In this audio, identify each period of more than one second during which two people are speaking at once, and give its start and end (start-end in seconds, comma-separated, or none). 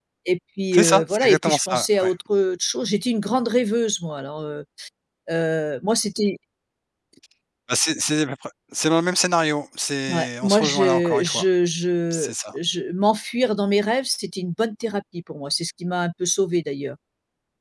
0.7-2.1, 10.1-11.4